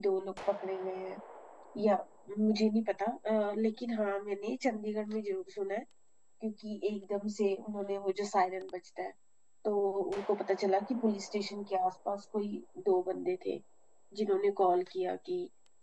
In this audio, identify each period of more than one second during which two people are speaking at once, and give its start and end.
none

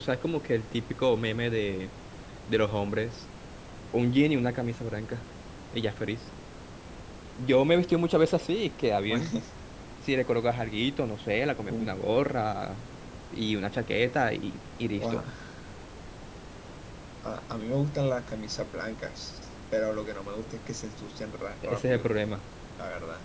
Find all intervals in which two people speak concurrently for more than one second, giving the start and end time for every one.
none

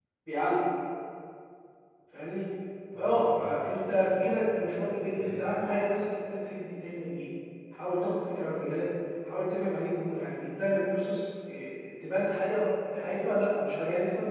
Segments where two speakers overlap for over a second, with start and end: 3.0-4.4

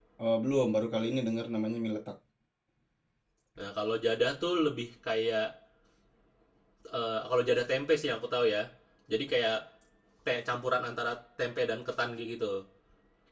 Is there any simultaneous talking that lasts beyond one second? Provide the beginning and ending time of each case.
none

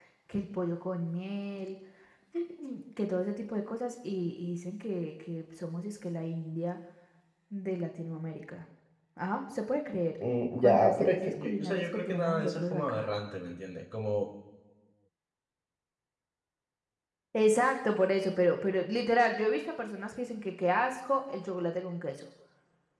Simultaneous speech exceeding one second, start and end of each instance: 10.6-13.1

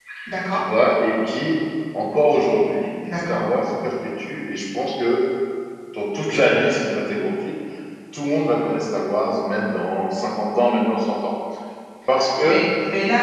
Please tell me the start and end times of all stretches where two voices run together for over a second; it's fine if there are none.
none

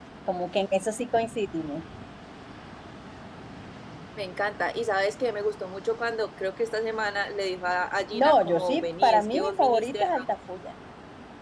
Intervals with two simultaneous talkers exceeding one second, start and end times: 8.1-10.1

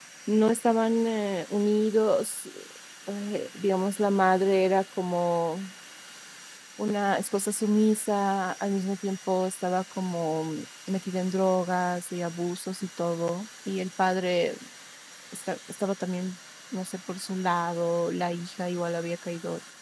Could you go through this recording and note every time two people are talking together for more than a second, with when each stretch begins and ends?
none

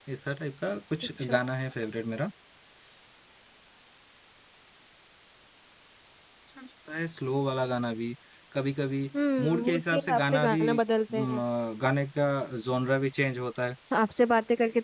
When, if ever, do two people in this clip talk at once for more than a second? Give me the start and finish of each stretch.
9.4-10.6

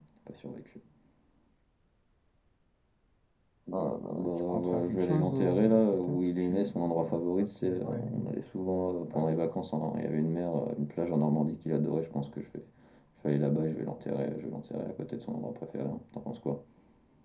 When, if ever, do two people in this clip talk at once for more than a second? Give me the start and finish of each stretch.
3.7-8.4

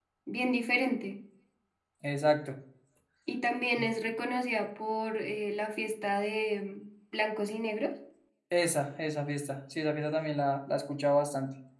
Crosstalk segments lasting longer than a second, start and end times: none

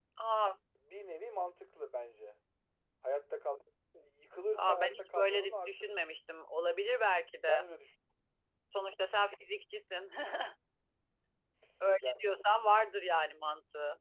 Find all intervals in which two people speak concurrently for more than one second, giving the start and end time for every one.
4.5-6.0

